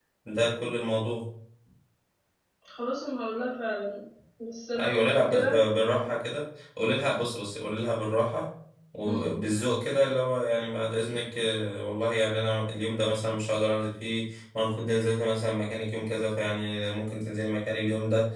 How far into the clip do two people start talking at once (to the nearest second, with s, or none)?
5 s